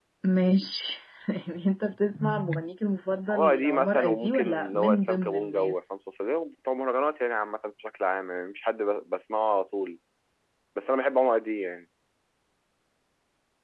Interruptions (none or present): present